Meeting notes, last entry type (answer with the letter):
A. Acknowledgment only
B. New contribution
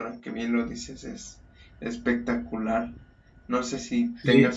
A